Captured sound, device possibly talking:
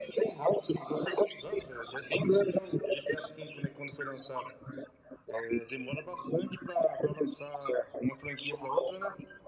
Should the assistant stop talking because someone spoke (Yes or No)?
No